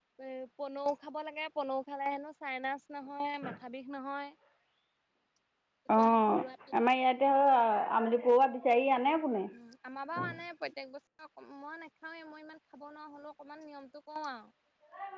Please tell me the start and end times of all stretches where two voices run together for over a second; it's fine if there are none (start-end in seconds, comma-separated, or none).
none